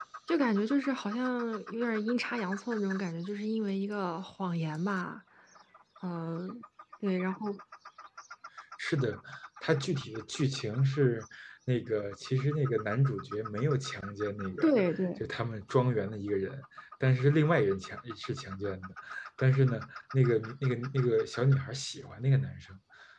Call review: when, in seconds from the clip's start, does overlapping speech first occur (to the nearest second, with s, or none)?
none